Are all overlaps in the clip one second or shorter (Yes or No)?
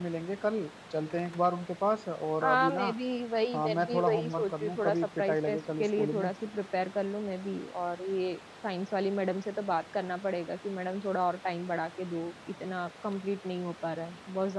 No